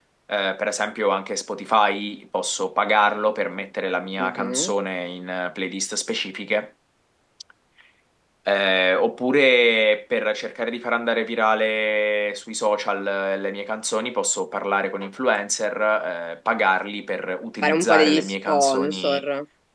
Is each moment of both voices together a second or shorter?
No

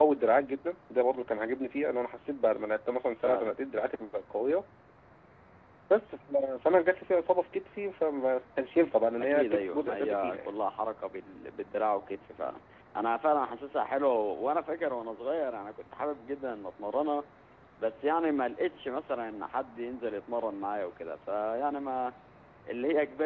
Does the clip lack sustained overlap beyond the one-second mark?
No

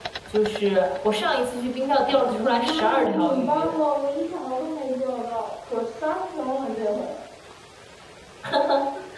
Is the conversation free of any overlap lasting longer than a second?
No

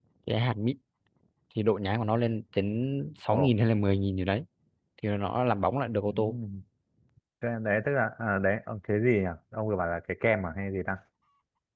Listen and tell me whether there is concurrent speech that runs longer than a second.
No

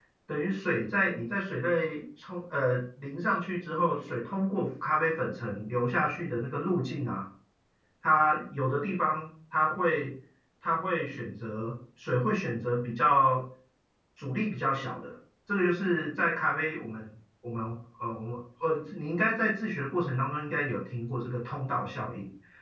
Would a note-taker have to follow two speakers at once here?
No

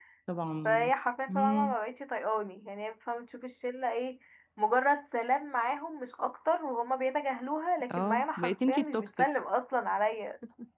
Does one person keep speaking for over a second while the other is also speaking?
Yes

